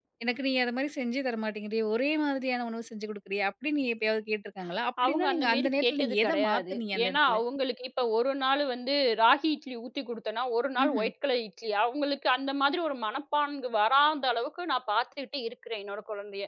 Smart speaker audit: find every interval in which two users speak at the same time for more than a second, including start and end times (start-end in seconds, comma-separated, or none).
5.0-7.4